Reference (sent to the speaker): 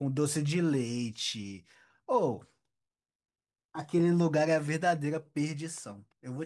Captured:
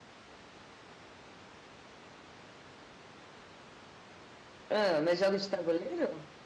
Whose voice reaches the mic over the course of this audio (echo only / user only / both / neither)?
user only